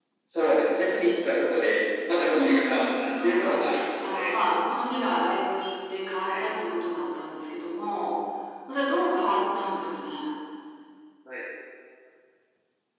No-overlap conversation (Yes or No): No